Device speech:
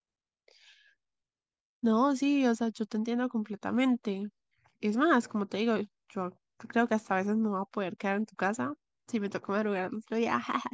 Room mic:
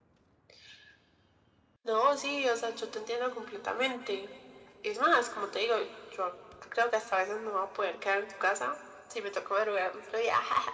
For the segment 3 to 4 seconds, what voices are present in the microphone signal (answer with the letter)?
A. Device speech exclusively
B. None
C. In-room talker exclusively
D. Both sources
A